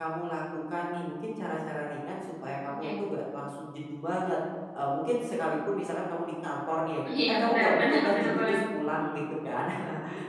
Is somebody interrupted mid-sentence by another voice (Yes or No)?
Yes